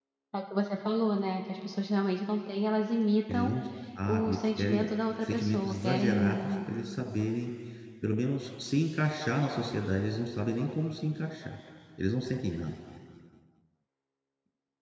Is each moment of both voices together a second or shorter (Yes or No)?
No